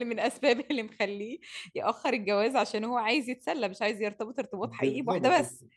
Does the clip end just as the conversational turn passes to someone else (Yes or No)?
Yes